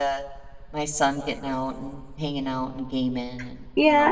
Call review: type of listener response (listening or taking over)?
taking over